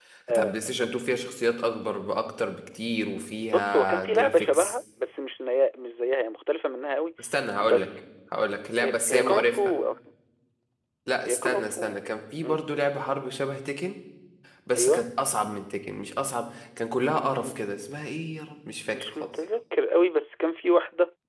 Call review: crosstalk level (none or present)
present